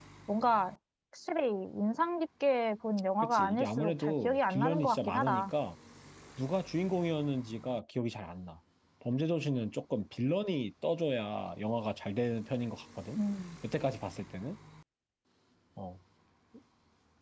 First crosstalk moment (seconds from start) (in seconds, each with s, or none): 3.2 s